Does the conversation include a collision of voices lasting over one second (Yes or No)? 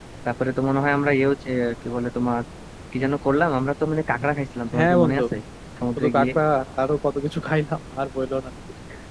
No